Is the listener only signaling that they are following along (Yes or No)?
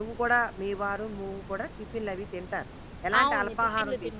No